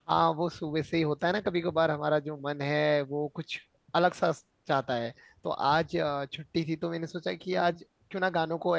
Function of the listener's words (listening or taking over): listening